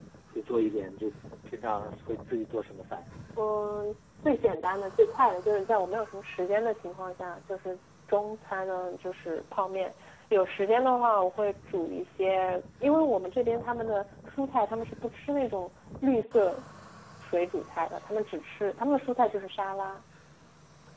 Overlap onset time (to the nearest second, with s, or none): none